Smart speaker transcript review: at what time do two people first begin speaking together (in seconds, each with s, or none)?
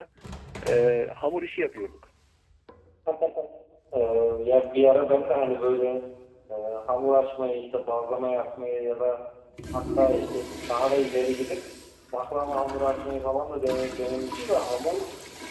none